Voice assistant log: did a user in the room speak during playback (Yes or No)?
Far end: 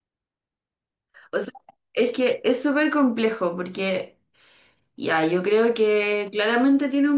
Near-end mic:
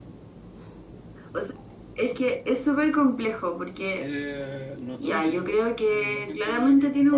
Yes